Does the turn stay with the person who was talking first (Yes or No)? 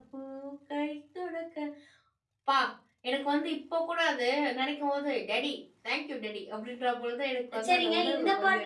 No